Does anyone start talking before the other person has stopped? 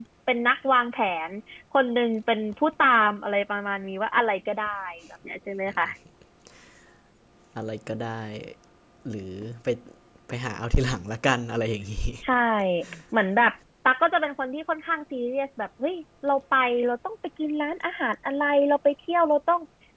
No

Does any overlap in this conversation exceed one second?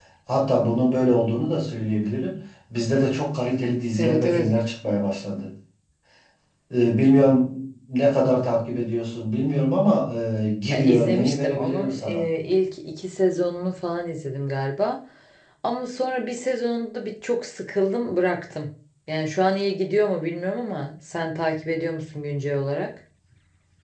Yes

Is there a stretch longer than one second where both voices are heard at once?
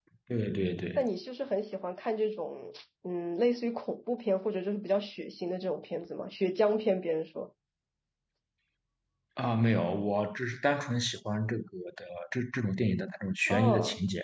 No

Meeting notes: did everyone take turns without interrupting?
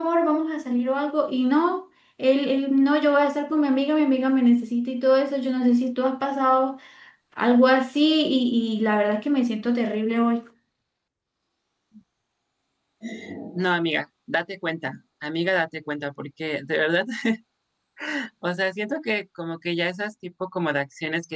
Yes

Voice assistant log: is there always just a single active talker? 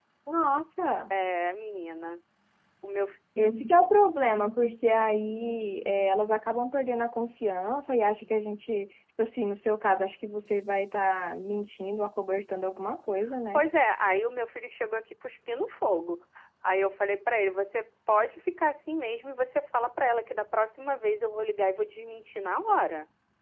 Yes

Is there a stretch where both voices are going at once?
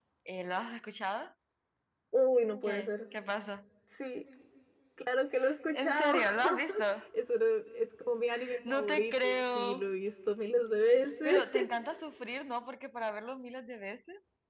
Yes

